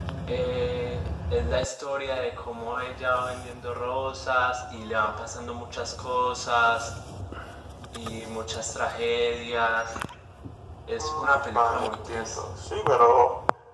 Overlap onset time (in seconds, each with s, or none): 11.0 s